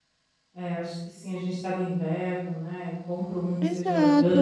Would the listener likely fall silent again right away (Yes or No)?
No